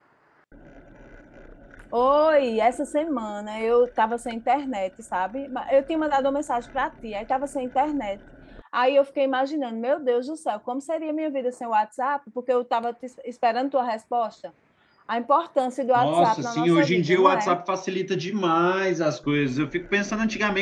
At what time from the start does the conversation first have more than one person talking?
15.9 s

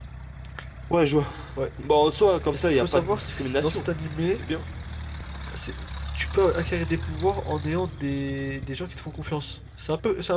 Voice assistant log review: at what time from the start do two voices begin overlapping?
2.5 s

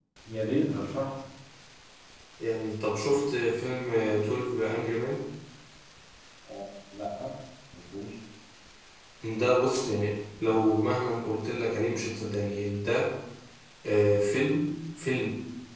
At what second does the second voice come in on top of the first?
none

